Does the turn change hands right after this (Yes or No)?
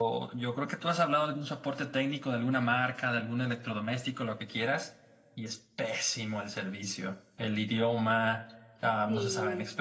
No